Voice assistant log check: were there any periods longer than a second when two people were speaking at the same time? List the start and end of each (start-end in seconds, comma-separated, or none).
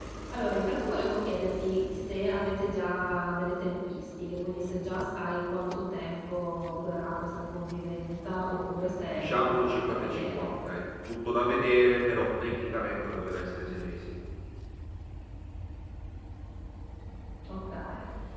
9.1-10.5